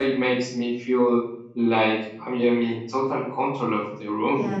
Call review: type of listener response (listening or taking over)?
taking over